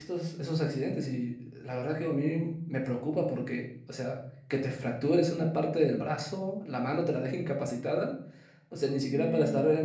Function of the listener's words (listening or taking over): listening